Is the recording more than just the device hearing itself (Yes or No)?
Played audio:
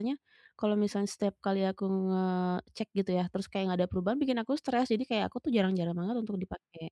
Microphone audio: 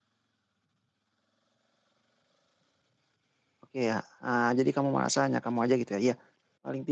Yes